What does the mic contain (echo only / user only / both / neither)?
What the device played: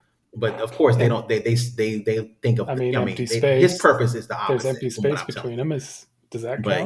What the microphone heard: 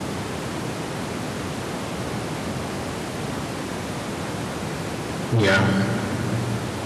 user only